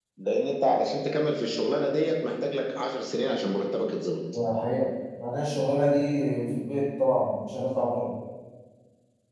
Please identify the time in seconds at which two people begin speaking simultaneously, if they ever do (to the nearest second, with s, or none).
none